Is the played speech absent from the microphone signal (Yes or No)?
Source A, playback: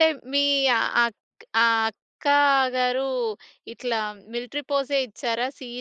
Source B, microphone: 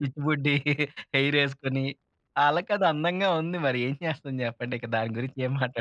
Yes